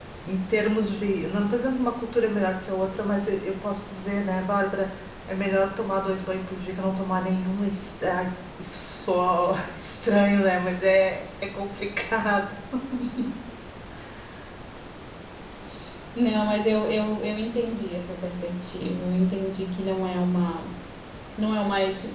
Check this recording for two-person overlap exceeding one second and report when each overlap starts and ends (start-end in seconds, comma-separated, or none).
none